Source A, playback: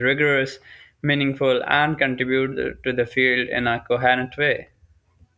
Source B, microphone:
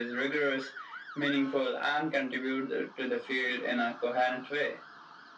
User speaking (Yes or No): No